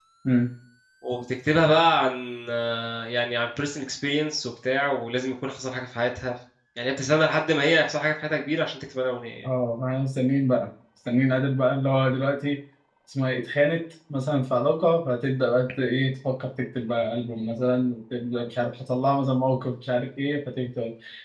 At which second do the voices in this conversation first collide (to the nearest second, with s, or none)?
none